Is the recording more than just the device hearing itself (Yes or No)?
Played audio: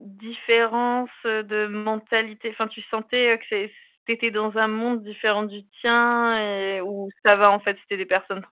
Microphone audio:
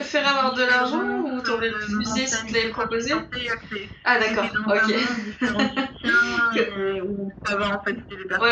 Yes